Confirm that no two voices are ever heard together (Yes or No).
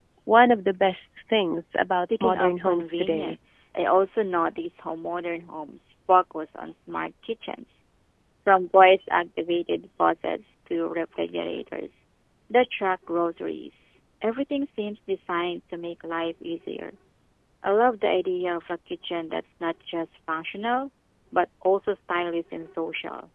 No